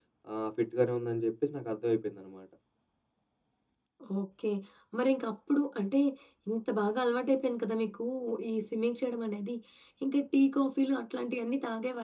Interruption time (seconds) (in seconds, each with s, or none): none